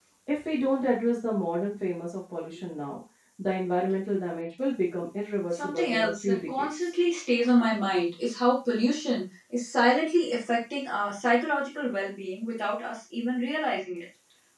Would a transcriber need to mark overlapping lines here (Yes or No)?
Yes